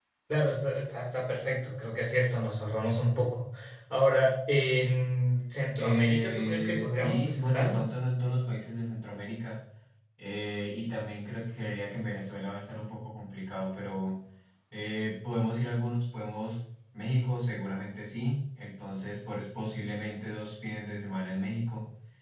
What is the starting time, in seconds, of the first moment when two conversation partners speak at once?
5.8 s

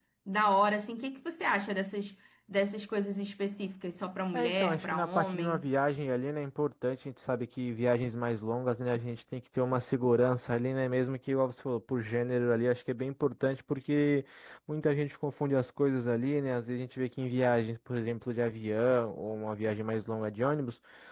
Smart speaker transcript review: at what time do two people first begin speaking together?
4.3 s

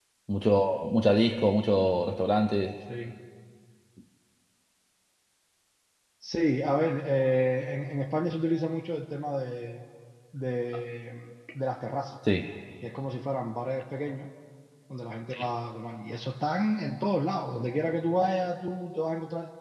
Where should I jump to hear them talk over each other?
none

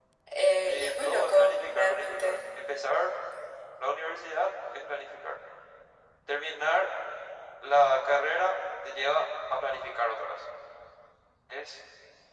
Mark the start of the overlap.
0.6 s

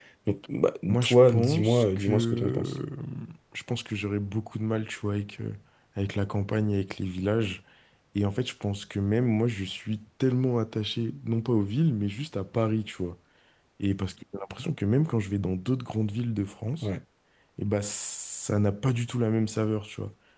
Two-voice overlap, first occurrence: 0.9 s

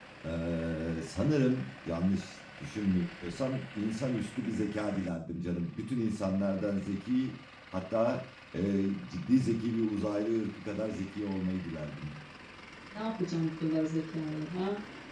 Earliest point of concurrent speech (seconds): none

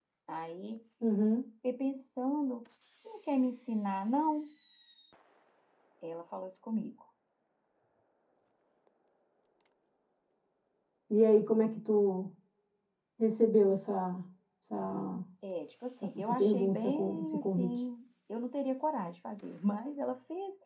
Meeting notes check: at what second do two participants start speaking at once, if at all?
16.0 s

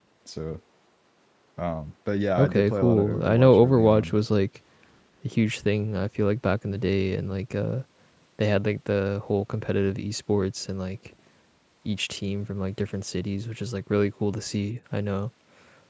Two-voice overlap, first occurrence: 2.4 s

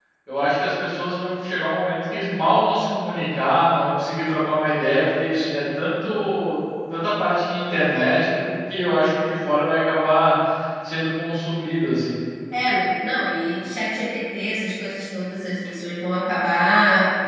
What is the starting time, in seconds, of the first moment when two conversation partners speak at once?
none

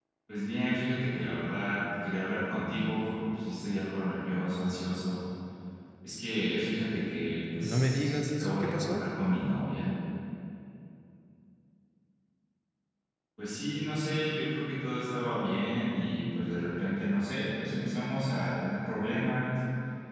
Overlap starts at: 7.6 s

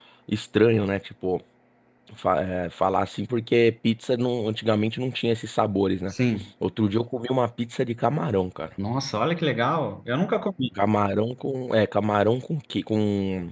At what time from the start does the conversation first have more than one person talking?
none

